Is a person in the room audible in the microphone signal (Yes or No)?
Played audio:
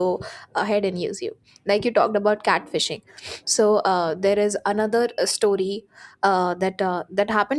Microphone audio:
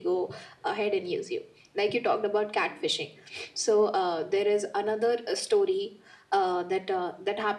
No